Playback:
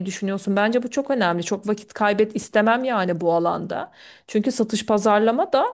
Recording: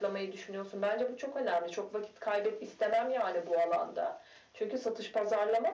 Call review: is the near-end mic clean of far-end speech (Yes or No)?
No